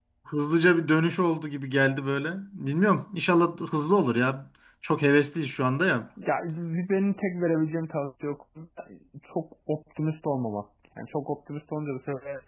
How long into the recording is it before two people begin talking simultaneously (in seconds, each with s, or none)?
none